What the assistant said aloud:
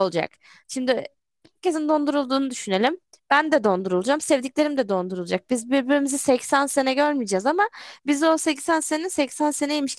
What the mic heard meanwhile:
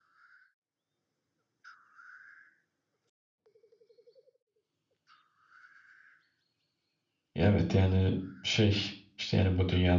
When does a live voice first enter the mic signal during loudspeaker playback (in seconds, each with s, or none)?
7.3 s